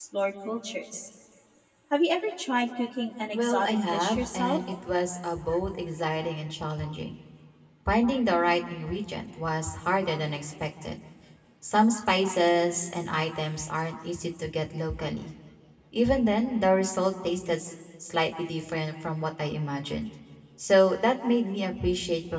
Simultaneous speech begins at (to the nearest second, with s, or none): 3 s